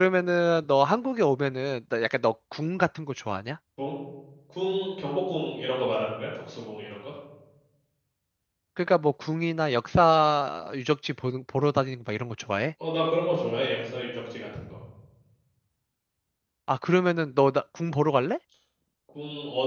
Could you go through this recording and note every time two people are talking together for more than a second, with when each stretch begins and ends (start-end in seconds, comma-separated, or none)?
none